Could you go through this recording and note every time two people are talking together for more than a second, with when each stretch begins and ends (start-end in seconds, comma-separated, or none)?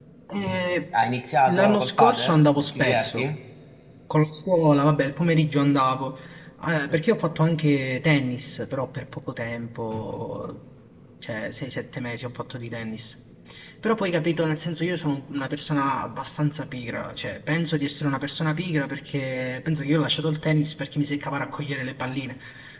1.5-3.3